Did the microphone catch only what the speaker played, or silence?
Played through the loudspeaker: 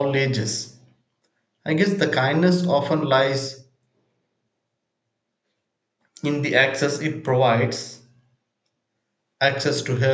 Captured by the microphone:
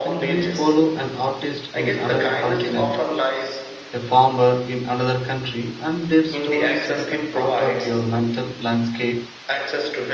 No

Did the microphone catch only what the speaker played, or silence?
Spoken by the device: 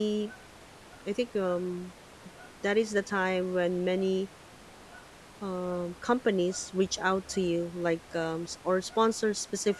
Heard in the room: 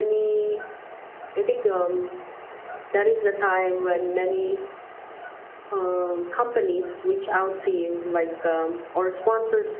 Yes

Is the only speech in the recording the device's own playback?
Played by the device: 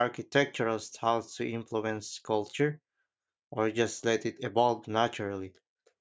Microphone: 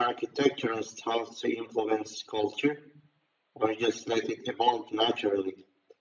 Yes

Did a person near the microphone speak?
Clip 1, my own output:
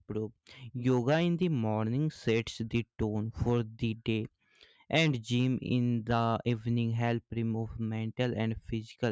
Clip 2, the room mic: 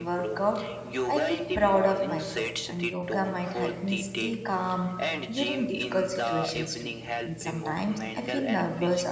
Yes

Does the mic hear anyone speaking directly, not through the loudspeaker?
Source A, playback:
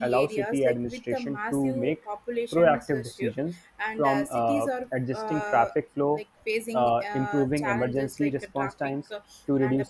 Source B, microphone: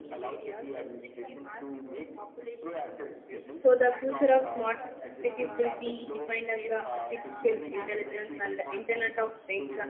Yes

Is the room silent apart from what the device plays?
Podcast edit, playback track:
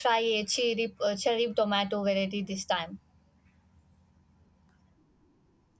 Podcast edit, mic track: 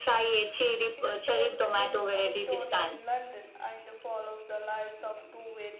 No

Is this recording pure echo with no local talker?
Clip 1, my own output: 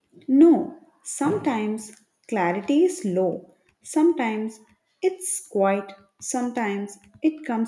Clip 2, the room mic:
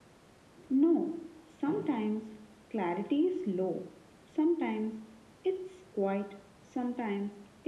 Yes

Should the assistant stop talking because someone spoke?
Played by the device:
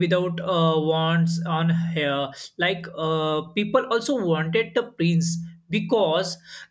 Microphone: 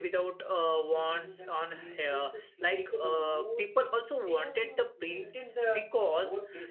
Yes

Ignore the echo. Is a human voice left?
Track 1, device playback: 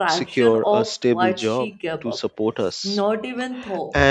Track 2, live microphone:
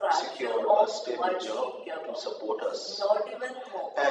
No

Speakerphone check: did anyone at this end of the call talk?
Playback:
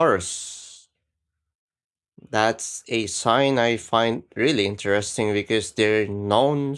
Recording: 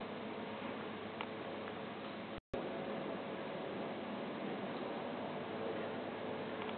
No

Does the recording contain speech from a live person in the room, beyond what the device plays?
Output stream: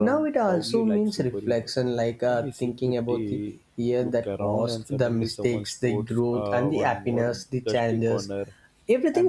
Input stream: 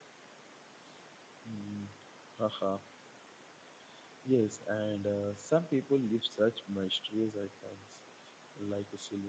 Yes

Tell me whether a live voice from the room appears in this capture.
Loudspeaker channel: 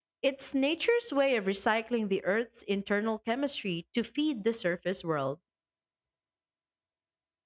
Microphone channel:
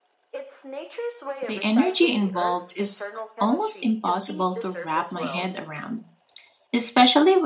Yes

